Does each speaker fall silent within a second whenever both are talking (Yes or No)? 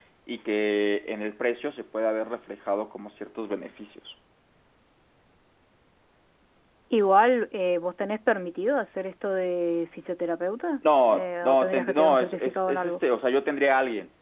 No